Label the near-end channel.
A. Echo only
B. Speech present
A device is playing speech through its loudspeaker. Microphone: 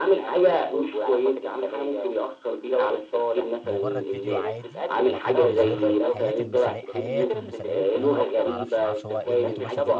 B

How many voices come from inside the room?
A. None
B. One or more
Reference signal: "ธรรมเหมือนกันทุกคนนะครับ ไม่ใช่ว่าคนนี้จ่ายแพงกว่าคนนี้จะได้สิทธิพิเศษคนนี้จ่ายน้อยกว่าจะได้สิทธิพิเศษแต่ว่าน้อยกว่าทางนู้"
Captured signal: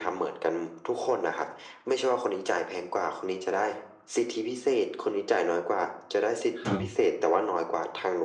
B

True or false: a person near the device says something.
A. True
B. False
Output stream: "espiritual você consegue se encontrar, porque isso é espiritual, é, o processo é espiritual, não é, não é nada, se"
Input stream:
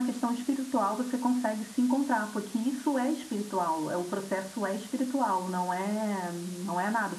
B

